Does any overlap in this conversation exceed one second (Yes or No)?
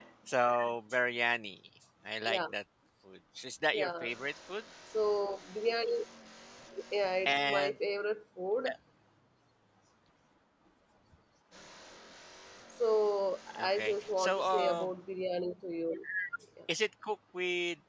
Yes